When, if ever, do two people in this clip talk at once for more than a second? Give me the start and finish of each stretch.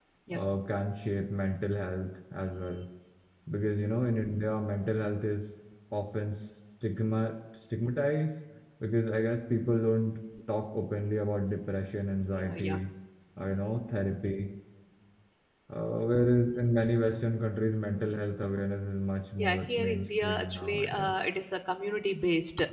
19.4-21.1

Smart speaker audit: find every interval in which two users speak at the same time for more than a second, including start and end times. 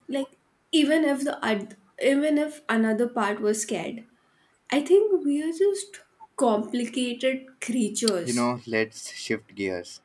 none

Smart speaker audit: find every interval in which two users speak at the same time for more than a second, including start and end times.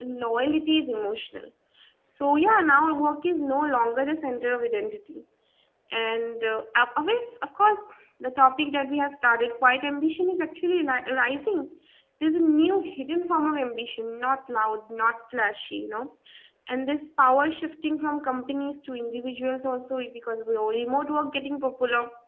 none

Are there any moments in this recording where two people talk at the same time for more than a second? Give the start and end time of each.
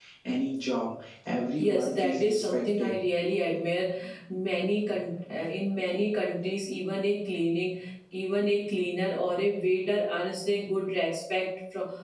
1.6-3.0

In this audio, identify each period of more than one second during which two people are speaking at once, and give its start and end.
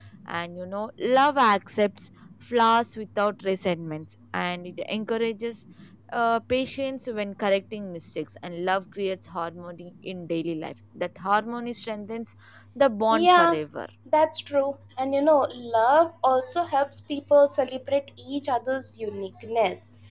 none

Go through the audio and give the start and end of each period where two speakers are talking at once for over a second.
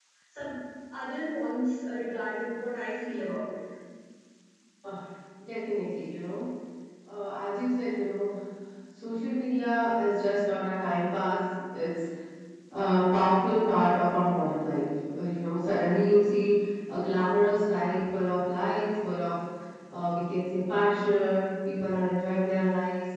none

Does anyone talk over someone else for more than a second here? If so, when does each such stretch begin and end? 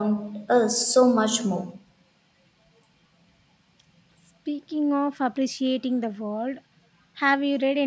none

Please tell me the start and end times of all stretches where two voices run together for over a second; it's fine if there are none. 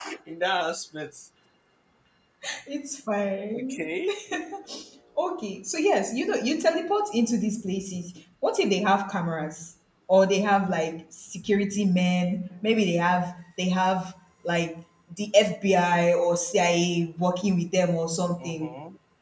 none

